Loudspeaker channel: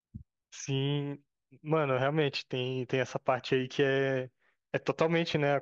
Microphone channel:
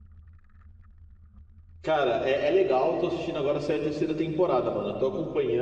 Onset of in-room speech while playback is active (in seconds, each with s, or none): 1.8 s